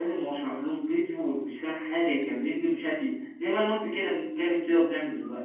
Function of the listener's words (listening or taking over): taking over